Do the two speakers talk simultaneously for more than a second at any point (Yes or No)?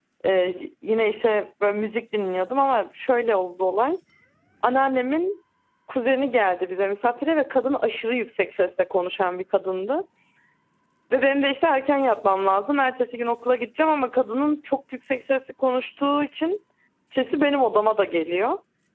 No